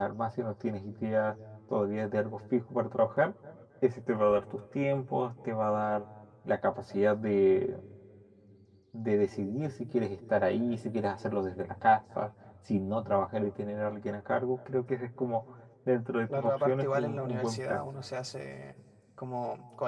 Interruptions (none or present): present